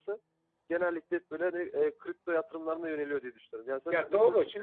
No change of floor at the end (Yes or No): No